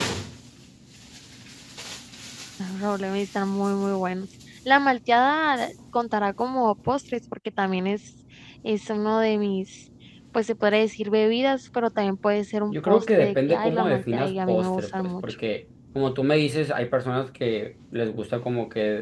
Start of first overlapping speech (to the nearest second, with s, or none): 13 s